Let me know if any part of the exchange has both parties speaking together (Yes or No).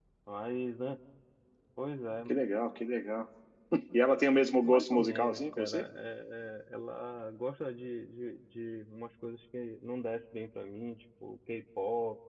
Yes